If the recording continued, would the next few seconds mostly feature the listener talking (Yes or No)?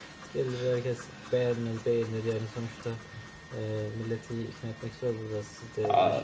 Yes